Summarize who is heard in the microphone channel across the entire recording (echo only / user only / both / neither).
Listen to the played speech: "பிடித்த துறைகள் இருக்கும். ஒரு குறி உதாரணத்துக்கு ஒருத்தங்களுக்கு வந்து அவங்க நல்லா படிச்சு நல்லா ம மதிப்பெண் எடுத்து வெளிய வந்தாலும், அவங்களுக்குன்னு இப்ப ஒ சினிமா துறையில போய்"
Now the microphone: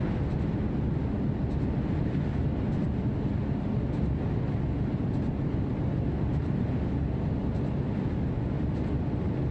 neither